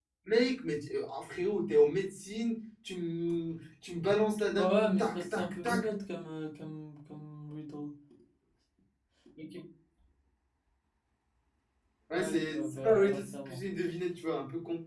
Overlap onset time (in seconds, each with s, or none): 4.6 s